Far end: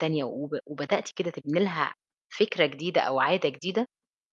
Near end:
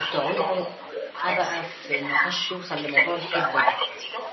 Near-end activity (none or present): present